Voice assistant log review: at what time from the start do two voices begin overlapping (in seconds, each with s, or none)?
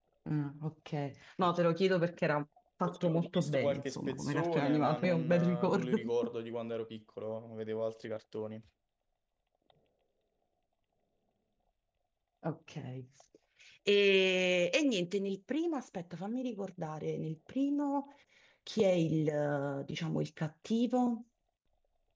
2.8 s